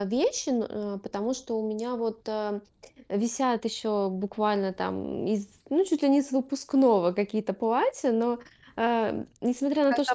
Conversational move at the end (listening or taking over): listening